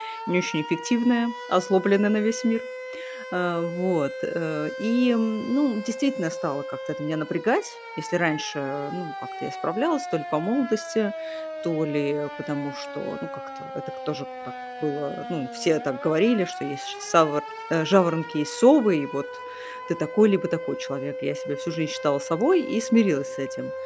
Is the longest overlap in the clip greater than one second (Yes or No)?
No